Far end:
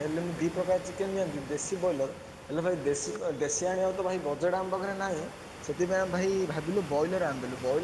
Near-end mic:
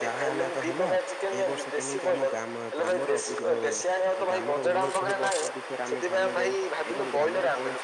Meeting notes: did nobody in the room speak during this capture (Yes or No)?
No